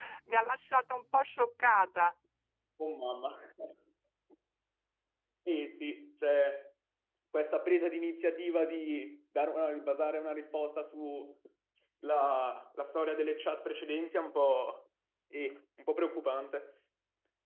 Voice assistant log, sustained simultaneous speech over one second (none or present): none